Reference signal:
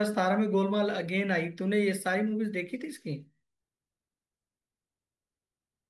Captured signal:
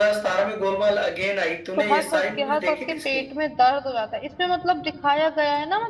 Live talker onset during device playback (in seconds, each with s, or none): 1.8 s